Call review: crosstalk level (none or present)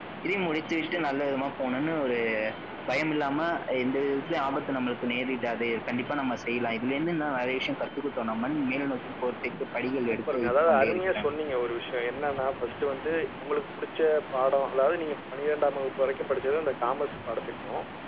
present